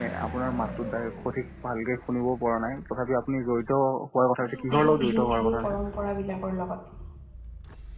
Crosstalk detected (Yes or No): Yes